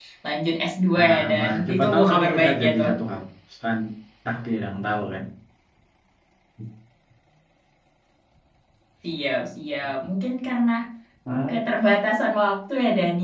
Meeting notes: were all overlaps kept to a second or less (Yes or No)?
No